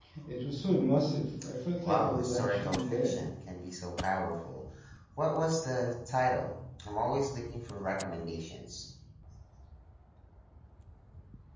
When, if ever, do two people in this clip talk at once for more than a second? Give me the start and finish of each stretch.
1.8-3.2

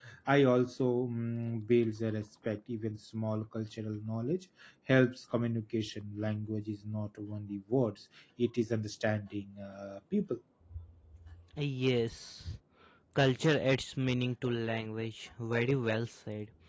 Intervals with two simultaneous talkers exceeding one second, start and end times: none

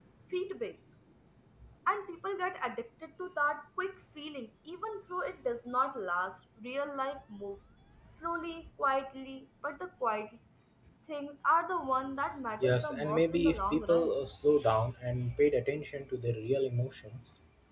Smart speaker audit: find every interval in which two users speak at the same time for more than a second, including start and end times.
12.6-14.1

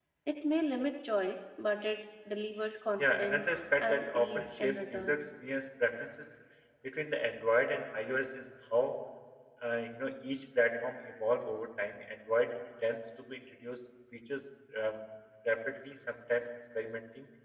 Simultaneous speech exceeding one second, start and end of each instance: 3.0-5.2

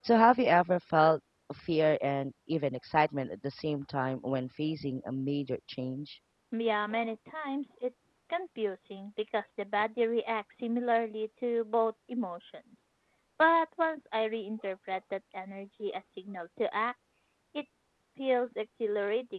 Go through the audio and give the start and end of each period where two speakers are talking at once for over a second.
none

